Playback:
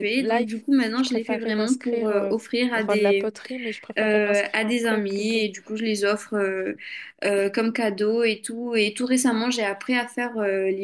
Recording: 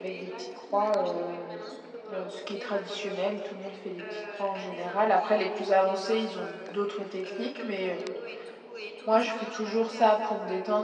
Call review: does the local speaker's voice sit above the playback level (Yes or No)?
Yes